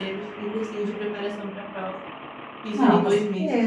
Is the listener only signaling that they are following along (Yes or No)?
No